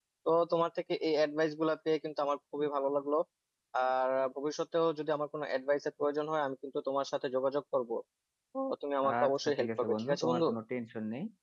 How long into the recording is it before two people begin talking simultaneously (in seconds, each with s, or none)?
9.1 s